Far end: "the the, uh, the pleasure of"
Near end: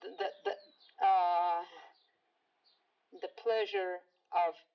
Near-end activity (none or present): none